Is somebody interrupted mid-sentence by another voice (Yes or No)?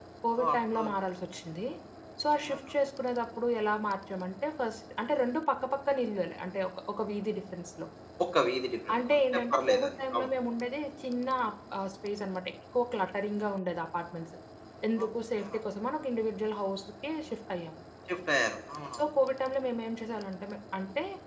Yes